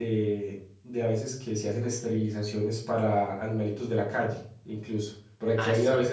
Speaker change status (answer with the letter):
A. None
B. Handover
A